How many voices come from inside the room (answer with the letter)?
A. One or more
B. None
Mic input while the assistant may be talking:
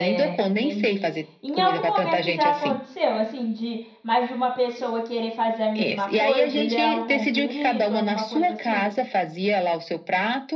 A